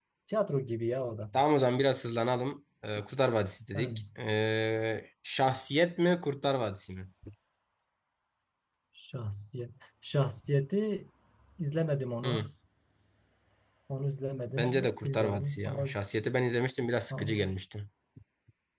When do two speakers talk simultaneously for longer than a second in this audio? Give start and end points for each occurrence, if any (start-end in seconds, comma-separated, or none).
14.5-15.9